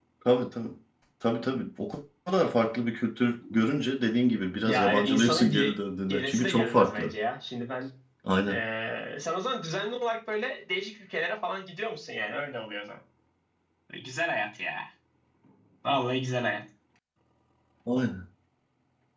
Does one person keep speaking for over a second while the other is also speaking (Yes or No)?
Yes